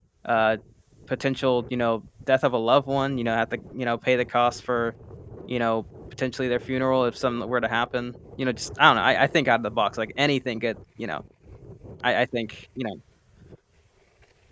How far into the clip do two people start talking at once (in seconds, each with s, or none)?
none